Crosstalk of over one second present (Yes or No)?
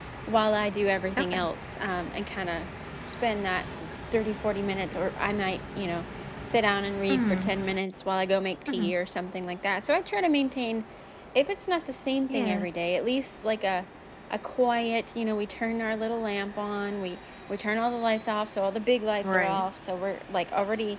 No